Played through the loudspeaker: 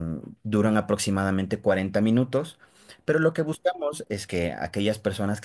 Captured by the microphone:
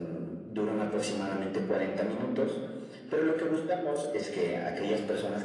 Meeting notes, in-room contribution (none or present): none